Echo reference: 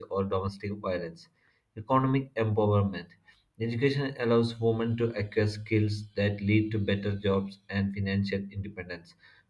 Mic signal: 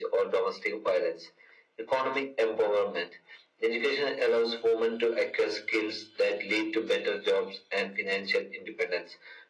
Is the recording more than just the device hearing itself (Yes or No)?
No